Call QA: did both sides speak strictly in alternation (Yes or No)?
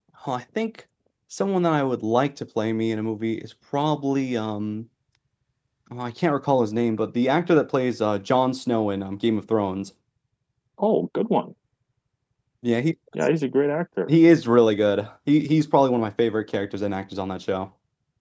Yes